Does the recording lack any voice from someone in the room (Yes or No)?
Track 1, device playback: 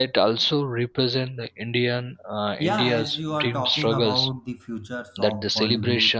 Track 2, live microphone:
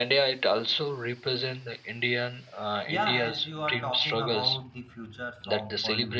Yes